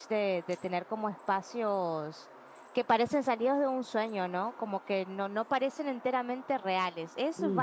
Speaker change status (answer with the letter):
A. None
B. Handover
B